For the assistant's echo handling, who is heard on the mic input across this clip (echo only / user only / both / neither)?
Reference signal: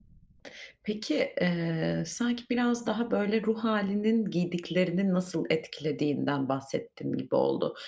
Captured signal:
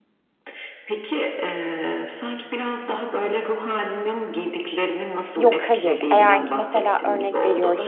both